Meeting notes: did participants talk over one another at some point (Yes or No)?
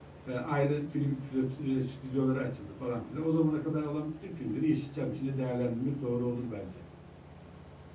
No